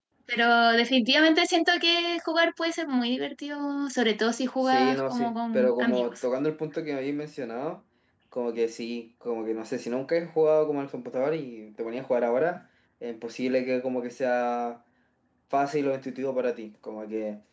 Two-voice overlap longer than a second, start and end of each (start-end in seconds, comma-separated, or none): 4.6-6.2